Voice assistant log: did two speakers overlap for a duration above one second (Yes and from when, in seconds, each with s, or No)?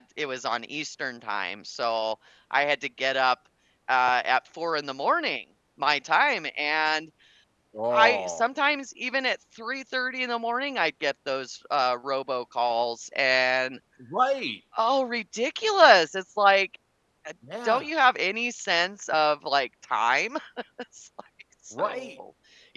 No